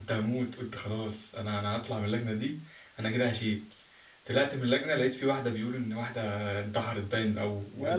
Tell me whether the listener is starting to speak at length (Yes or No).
No